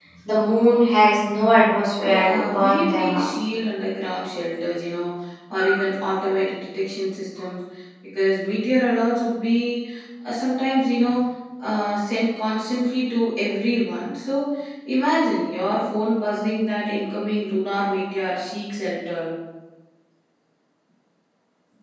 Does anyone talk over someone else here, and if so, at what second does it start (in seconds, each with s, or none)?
2.0 s